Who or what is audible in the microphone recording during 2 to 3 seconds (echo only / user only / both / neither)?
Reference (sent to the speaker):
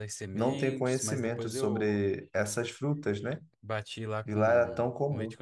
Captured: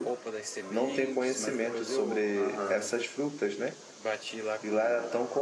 both